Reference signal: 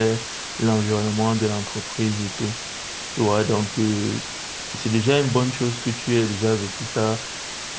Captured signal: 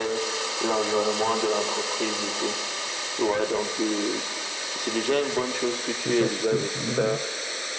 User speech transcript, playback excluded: C'est ça. Oui, oui.

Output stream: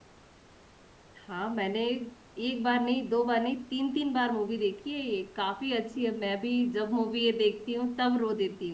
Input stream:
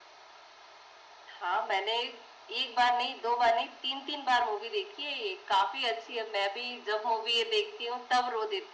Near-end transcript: none

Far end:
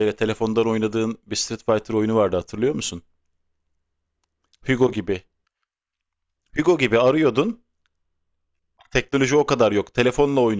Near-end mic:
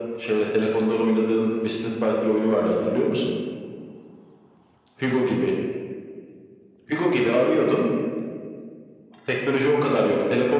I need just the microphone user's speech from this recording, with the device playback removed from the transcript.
none

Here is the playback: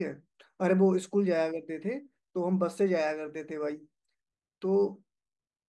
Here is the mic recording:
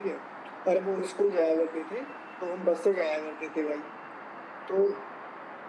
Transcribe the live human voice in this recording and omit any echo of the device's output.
none

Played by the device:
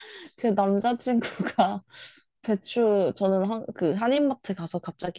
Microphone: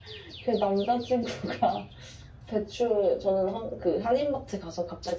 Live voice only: none

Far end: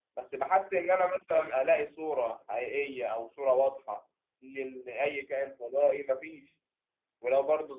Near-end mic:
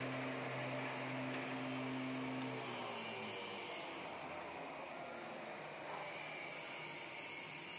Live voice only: none

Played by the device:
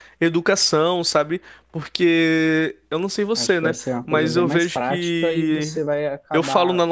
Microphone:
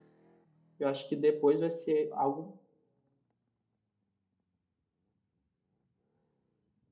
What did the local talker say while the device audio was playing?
eu acho que depois vai ser algo

